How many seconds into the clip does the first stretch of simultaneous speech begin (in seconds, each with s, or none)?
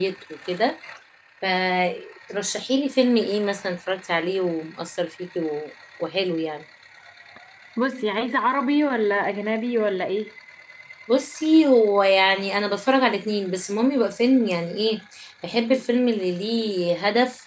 none